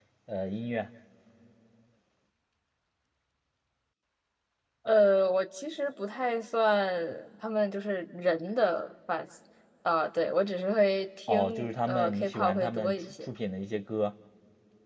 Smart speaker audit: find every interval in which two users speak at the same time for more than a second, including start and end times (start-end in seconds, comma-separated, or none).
11.3-13.2